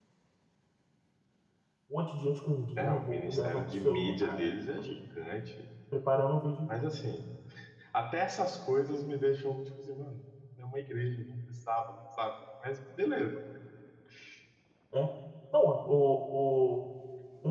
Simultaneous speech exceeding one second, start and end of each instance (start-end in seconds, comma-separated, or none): 2.8-4.5